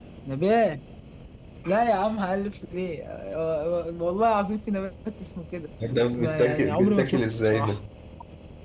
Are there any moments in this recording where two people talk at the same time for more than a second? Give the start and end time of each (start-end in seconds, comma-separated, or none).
5.9-7.8